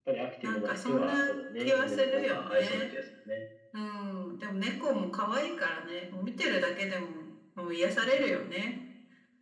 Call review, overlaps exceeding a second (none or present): present